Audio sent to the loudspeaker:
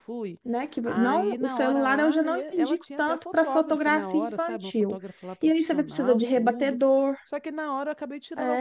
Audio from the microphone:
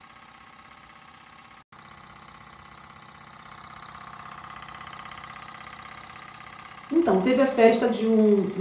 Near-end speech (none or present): present